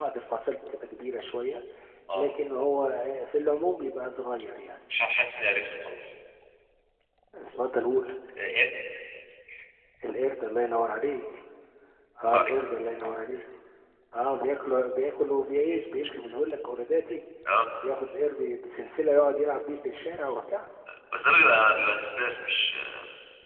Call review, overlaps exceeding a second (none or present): none